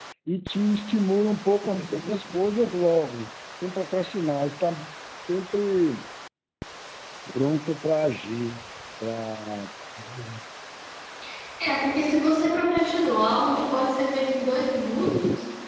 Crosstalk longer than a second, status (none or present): none